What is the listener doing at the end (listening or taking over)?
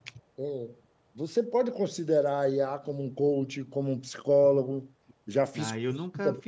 taking over